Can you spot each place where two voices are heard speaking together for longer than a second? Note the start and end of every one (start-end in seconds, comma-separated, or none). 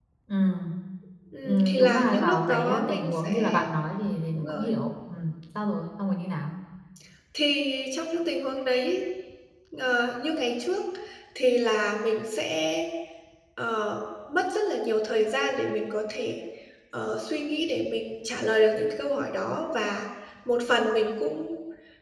1.4-3.6